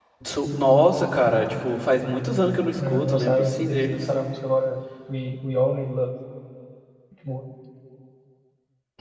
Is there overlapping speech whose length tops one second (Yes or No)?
Yes